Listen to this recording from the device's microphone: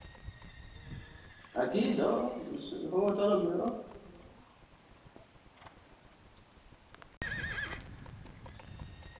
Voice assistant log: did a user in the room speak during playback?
Yes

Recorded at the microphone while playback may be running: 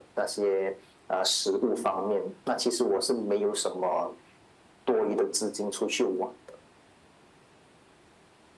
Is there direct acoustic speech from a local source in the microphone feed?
No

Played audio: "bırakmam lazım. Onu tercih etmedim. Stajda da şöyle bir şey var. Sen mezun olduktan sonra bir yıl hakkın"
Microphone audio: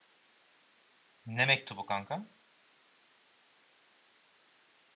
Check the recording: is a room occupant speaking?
Yes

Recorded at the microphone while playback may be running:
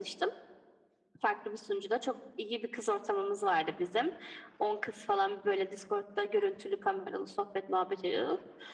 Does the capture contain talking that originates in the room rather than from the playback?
No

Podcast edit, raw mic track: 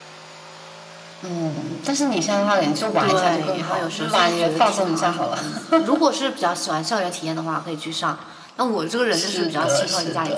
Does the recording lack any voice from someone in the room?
No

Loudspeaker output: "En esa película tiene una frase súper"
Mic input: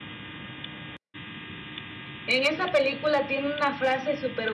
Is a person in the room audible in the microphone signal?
No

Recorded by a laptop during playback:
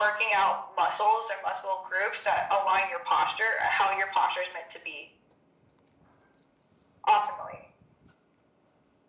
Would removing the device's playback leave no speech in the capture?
Yes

